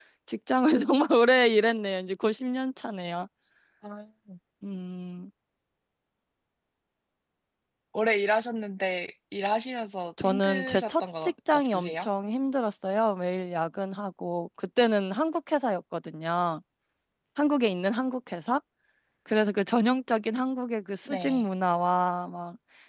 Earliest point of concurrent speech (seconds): 10.2 s

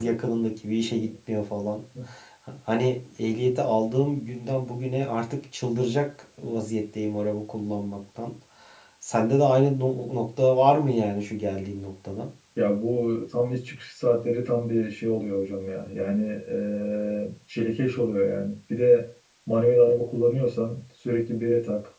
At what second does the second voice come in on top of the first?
none

